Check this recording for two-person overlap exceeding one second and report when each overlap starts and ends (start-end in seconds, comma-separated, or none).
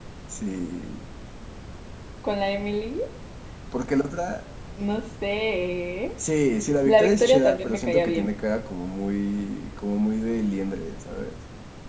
6.9-8.3